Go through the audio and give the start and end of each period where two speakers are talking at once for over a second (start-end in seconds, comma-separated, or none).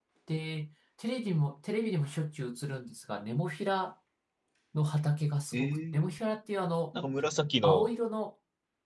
none